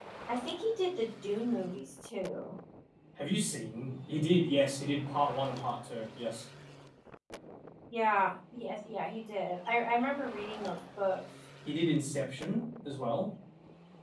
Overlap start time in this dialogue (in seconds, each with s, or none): none